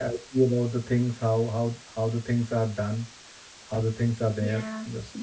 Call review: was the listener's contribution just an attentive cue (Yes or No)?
No